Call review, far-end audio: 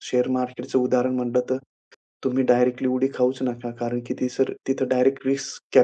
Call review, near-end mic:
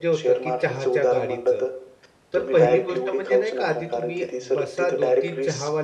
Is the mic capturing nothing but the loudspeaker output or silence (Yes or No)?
No